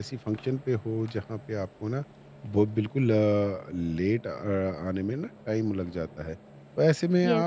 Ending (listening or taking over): listening